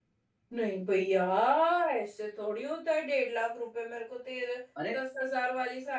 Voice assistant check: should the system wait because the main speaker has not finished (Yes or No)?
Yes